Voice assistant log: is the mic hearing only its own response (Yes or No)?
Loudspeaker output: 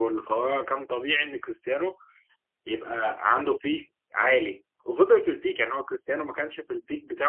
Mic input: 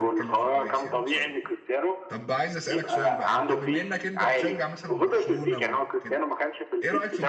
No